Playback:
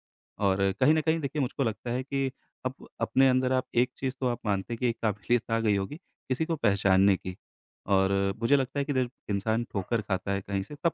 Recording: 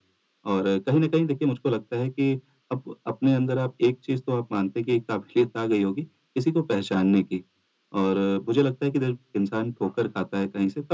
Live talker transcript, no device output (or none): none